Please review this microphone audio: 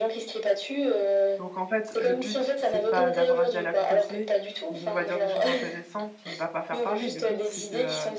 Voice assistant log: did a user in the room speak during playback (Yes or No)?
Yes